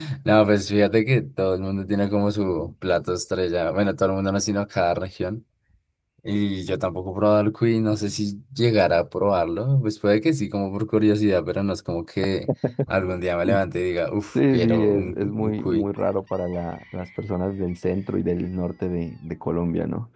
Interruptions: present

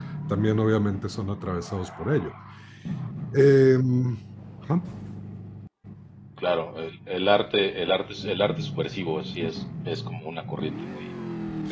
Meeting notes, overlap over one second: none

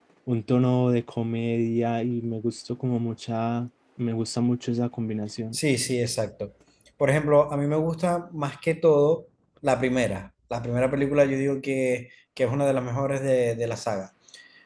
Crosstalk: none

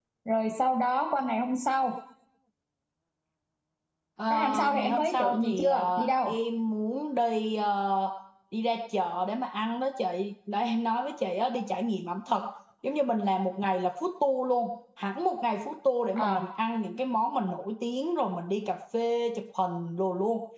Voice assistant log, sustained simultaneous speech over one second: present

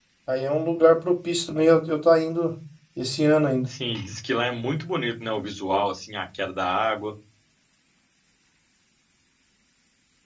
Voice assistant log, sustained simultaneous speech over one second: none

